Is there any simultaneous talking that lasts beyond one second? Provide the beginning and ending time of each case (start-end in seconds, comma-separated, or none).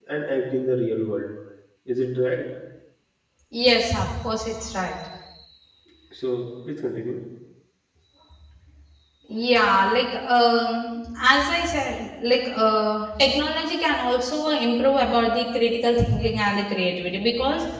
none